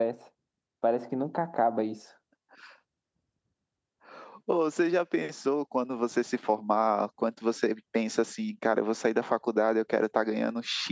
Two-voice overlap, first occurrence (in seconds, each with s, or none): none